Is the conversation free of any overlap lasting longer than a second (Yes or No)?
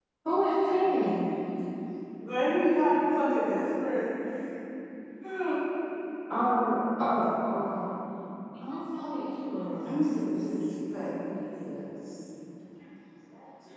Yes